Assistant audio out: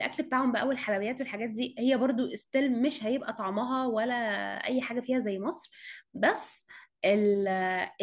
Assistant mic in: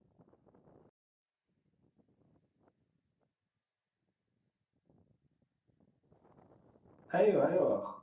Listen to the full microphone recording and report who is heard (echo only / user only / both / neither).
user only